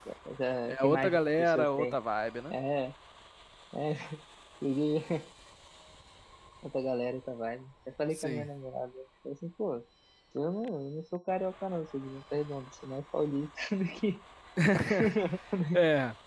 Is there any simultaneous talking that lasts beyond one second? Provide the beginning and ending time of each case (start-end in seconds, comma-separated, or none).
0.7-2.0